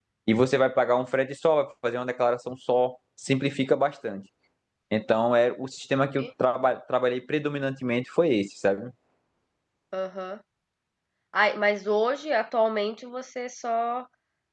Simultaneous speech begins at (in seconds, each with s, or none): none